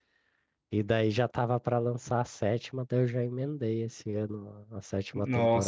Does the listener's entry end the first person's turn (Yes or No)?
Yes